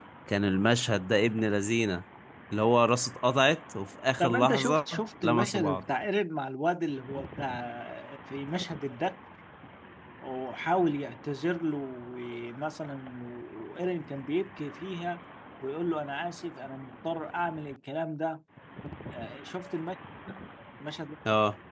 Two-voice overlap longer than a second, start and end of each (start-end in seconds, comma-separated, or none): 4.2-5.8